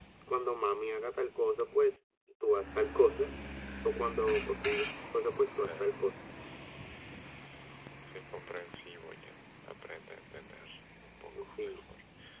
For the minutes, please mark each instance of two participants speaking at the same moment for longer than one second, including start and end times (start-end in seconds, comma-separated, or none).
none